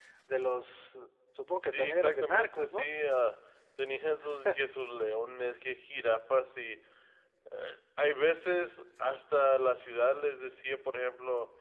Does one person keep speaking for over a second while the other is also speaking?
Yes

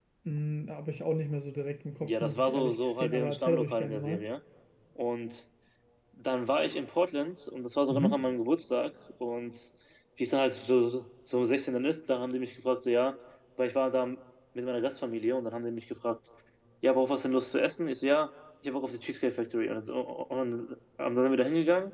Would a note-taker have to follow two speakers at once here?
Yes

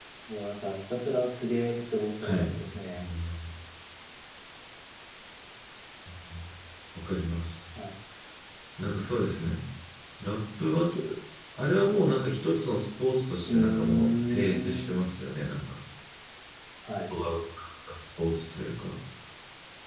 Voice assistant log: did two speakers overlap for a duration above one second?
Yes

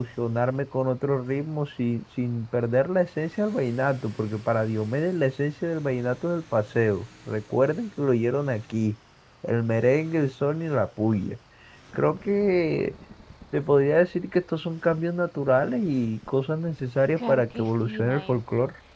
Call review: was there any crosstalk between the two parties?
Yes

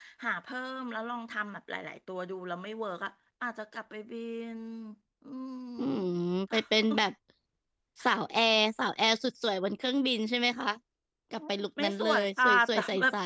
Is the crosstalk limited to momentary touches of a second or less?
No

